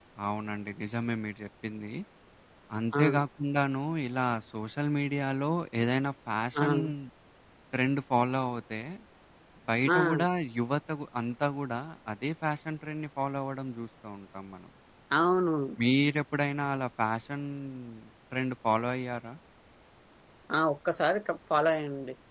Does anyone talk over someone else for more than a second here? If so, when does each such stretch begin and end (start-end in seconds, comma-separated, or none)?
none